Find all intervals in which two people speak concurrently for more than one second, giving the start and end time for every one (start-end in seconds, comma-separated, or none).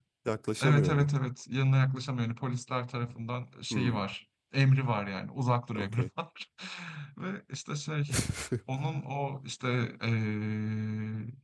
none